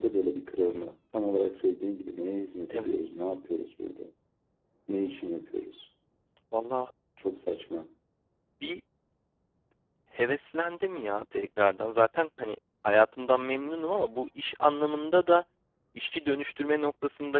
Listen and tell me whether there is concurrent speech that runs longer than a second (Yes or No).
No